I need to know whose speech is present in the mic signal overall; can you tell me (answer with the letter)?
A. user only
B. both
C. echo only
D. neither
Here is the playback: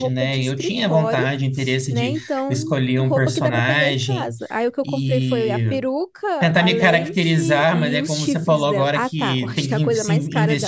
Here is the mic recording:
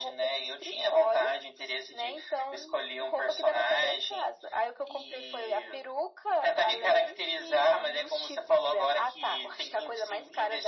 C